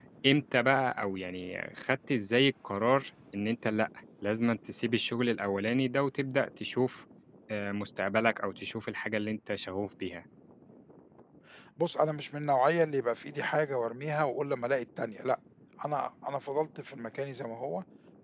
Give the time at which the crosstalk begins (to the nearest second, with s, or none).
none